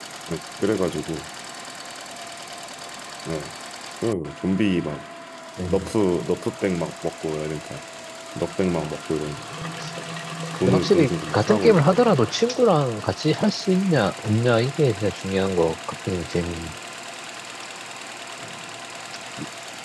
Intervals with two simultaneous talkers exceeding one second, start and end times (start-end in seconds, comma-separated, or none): 10.6-12.0